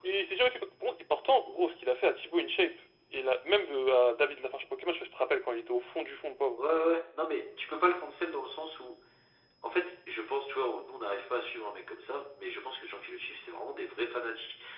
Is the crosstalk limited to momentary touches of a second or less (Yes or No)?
Yes